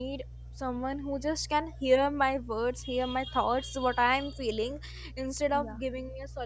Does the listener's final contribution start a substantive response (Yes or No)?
No